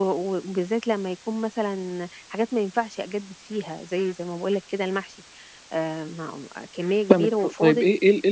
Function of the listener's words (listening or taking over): taking over